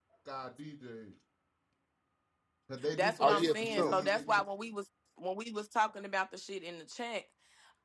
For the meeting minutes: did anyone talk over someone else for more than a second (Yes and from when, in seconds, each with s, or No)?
Yes, from 2.9 s